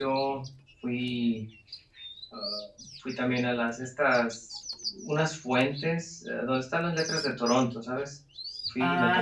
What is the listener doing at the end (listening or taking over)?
taking over